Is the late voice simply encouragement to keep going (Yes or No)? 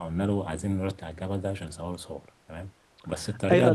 No